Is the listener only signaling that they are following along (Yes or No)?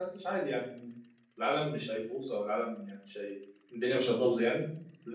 Yes